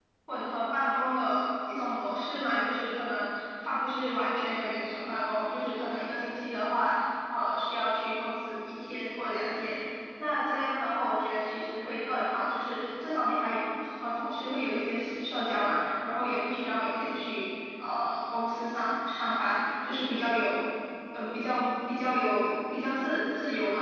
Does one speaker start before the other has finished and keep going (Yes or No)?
No